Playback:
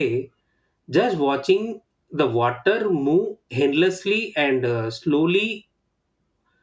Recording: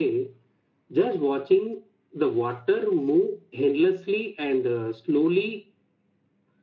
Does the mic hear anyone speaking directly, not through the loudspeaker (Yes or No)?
No